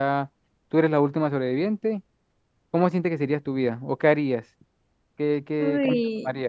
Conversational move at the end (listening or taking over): taking over